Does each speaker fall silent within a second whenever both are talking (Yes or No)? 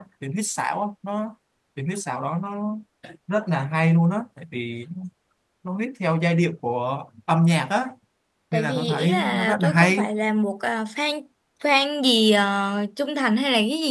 No